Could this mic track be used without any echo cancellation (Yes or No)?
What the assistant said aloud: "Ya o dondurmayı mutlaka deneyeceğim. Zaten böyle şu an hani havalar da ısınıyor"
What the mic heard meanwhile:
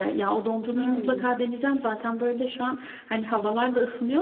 No